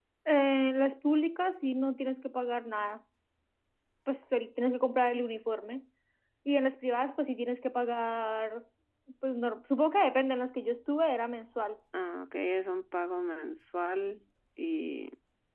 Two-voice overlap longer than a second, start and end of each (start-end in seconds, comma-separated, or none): none